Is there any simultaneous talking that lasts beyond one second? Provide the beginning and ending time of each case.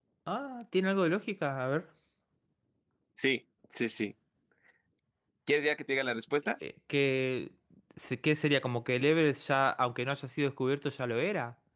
none

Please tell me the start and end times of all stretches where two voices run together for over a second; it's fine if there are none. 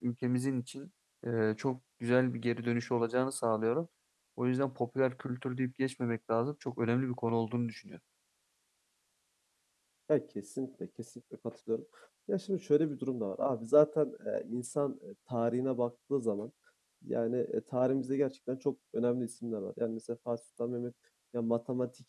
none

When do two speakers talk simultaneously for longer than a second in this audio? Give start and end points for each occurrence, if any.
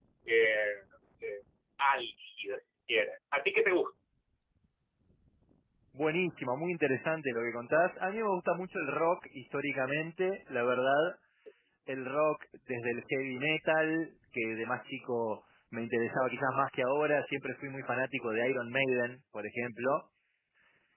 none

